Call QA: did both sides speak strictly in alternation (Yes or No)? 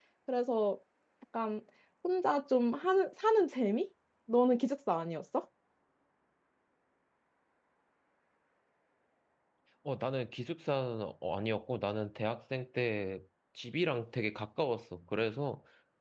Yes